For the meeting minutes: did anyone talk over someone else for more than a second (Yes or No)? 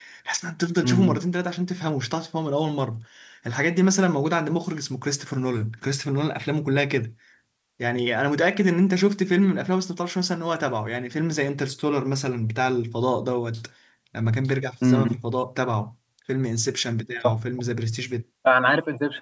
No